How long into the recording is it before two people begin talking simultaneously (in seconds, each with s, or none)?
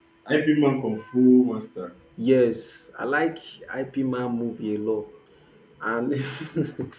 none